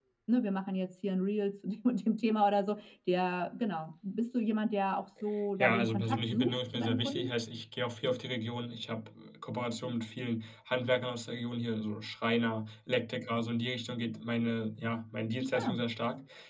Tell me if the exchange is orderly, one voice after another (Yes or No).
No